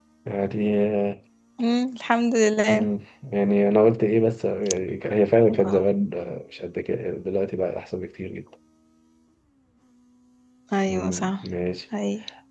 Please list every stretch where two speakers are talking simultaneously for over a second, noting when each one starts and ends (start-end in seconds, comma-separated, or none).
none